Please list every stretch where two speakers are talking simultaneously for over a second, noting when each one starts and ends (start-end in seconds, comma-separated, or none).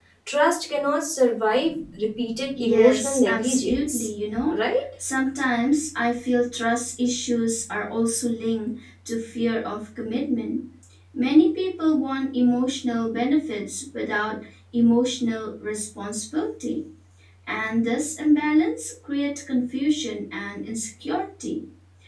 2.6-4.0